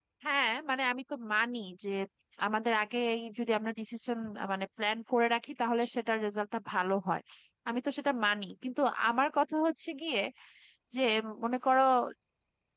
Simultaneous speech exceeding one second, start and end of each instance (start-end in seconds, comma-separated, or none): none